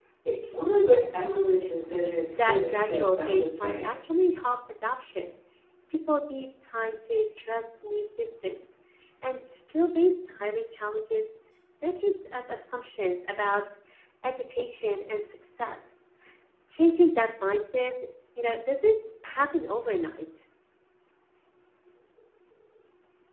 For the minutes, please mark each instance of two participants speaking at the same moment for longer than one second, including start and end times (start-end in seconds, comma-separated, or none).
2.3-3.9